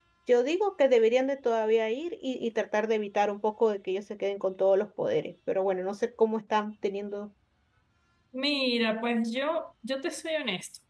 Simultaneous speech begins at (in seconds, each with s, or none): none